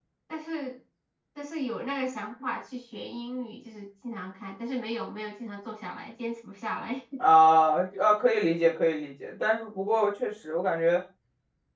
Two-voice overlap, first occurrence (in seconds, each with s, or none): none